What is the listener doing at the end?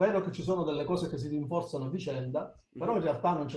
listening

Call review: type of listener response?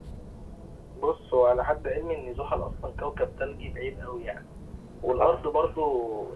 listening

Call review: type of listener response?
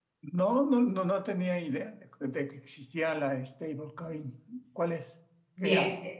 taking over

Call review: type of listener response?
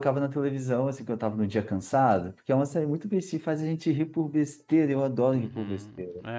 taking over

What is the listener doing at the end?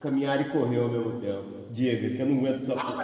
taking over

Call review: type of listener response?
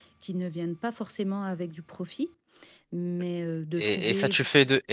taking over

